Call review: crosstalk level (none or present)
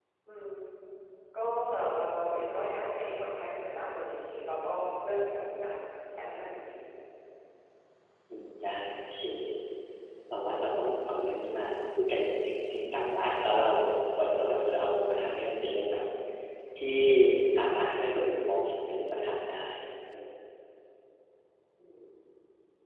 none